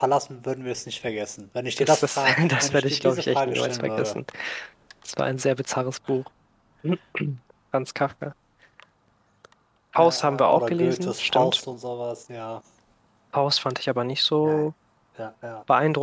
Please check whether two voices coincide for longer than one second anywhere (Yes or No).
Yes